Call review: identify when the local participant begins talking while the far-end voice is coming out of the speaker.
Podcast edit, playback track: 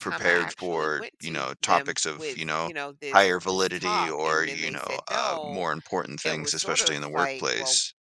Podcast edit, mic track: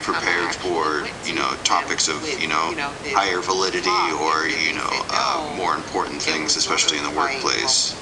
none

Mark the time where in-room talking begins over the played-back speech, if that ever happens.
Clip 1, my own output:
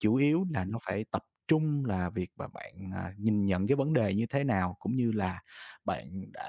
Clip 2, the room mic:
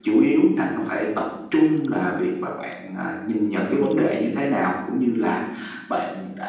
none

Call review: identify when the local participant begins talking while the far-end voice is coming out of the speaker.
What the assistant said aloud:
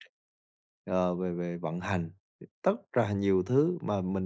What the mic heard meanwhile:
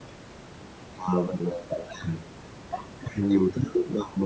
none

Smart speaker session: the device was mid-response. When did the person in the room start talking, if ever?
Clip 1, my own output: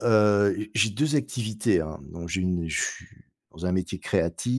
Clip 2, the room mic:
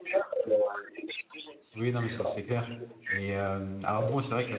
1.7 s

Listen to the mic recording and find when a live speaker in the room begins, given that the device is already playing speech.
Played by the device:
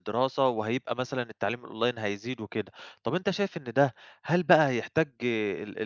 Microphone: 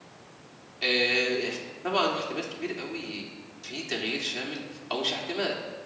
0.8 s

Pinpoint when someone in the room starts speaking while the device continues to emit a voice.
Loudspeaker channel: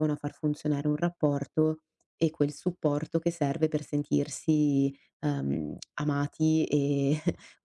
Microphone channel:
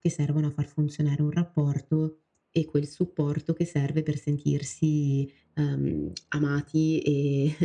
none

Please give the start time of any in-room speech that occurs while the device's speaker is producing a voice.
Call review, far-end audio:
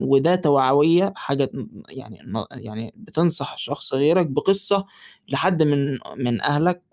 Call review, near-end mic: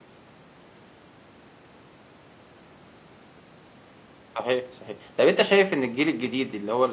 4.4 s

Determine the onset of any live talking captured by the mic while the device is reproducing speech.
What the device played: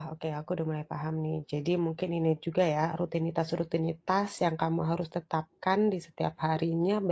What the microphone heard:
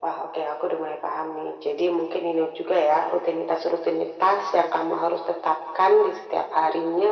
none

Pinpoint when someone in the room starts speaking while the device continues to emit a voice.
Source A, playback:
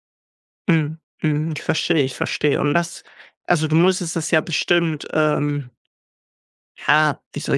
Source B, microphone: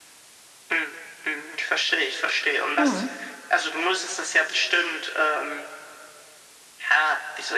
2.8 s

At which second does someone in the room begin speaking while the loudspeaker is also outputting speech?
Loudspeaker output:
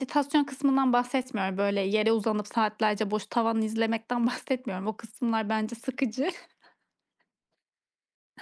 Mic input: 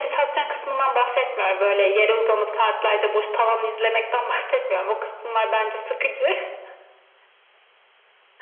none

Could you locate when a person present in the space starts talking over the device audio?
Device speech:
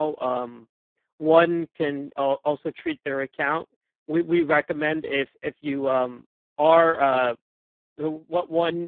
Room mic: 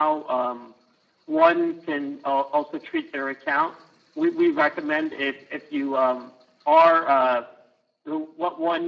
none

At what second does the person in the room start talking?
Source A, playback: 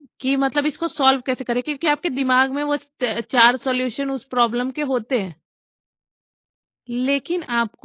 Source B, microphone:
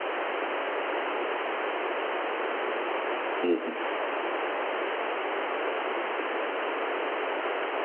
3.4 s

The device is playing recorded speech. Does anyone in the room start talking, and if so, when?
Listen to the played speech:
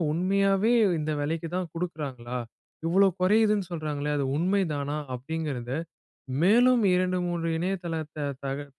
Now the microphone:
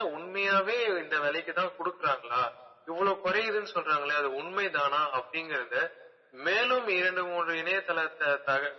none

